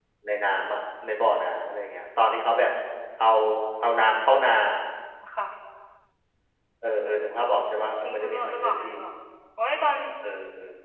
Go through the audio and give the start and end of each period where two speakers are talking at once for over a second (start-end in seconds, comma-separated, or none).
7.5-8.9